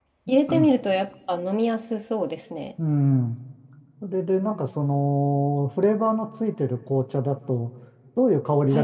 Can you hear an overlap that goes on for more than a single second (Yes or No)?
No